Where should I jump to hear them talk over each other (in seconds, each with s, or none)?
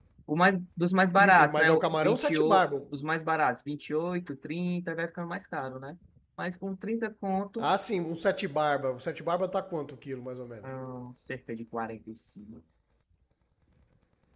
1.2 s